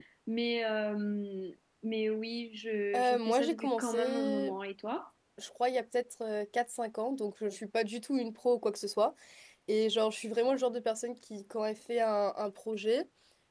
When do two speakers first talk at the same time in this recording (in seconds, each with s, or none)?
2.9 s